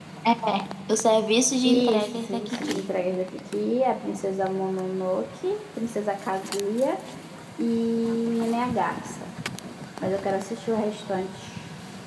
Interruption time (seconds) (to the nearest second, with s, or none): 2 s